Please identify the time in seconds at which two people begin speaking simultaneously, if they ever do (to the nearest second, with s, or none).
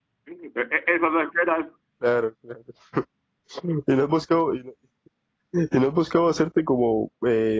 none